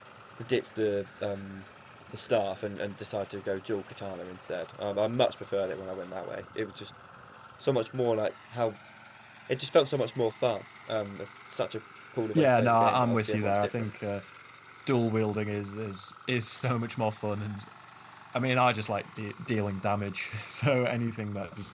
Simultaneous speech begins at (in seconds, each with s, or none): 12.3 s